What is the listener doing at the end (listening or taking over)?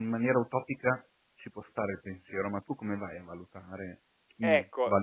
taking over